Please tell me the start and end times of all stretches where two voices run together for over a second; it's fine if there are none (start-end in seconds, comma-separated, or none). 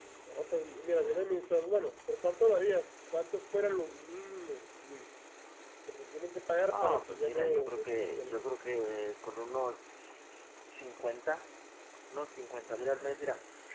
6.7-8.5